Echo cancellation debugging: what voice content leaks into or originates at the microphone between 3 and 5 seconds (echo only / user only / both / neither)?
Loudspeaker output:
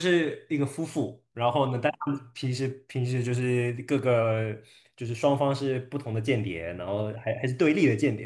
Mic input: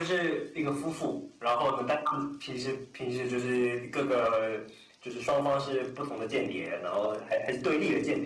echo only